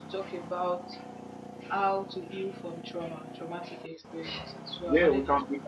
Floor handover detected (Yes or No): Yes